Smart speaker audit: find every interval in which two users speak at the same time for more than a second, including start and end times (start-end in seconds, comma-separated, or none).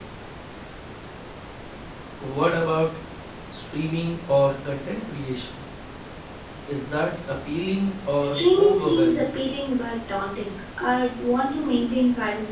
8.2-9.4